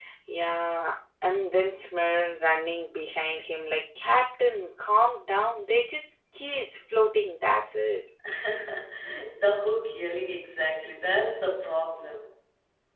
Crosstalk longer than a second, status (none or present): none